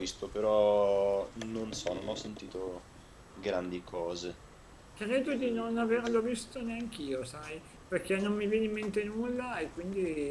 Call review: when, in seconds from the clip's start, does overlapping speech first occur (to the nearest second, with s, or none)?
none